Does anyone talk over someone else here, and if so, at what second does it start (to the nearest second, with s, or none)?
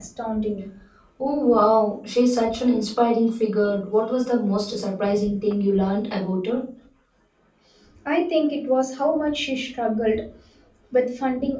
none